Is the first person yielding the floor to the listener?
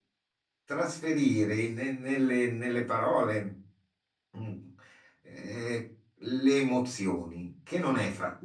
No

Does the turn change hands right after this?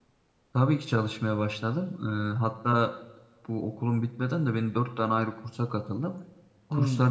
No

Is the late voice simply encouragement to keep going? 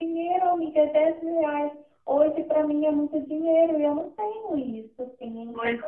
No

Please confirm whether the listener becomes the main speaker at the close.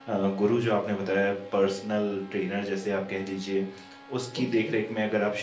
No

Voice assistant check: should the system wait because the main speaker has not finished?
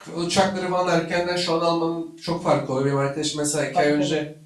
Yes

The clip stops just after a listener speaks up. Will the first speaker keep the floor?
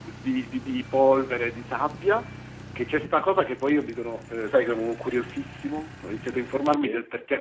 Yes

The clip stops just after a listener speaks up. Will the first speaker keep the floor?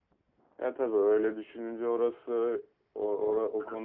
No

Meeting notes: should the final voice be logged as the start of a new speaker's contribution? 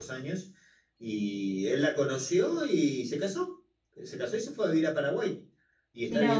No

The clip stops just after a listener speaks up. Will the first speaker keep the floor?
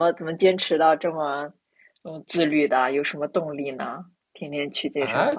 No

